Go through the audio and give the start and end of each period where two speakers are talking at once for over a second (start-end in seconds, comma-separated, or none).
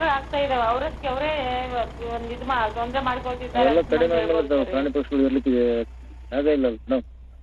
3.5-4.8